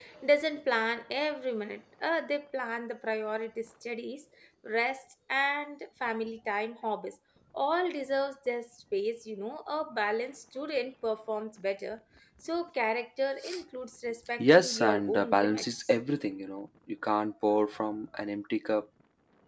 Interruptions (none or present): present